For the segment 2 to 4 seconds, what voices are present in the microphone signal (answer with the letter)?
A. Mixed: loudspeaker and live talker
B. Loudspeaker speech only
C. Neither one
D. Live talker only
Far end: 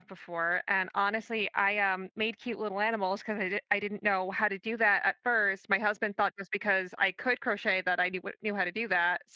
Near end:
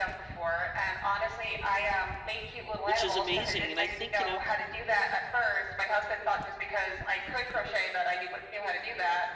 A